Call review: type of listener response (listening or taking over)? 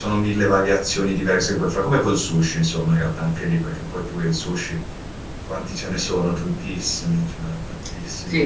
taking over